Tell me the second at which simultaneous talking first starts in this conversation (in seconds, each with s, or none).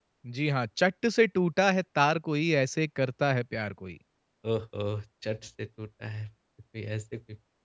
none